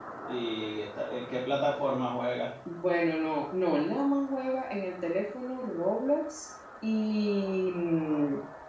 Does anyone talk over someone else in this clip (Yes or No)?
No